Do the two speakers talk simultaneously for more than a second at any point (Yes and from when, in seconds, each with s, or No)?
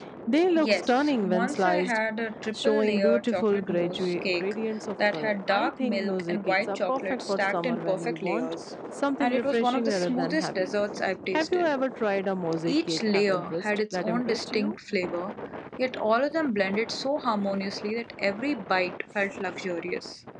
Yes, from 0.6 s